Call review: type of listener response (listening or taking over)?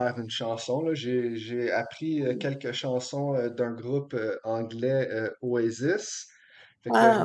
listening